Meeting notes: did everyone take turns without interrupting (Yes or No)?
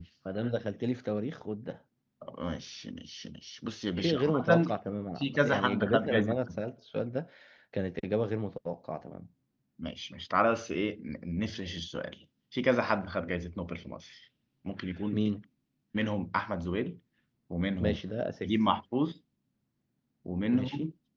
No